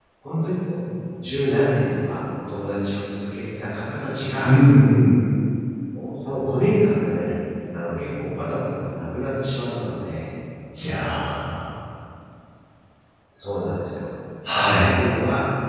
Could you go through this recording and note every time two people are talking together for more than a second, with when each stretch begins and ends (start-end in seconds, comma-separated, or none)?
none